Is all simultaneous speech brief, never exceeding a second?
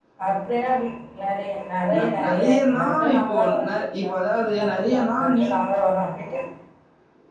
No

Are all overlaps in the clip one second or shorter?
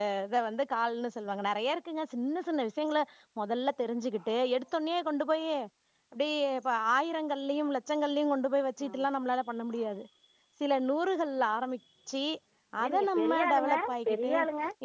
No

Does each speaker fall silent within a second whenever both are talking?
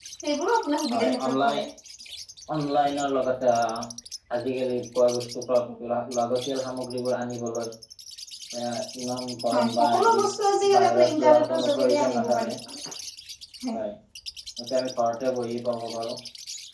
No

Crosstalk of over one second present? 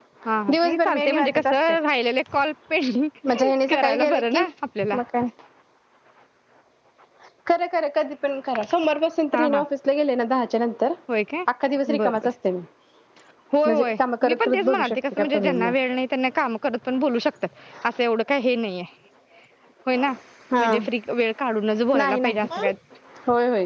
Yes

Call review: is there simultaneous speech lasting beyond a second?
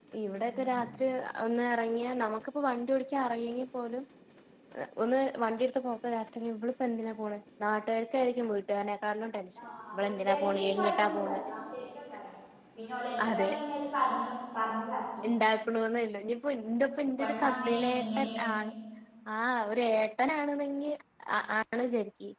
Yes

